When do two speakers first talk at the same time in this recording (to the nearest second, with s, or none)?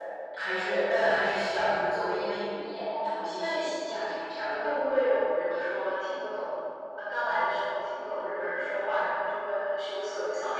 3 s